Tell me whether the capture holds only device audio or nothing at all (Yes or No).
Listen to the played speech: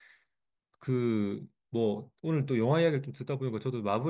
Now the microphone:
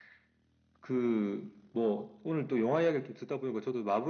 Yes